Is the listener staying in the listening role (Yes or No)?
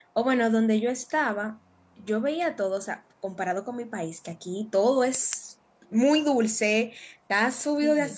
Yes